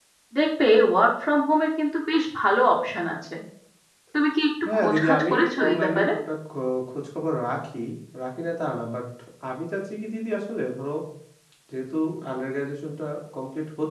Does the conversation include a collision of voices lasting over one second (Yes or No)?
Yes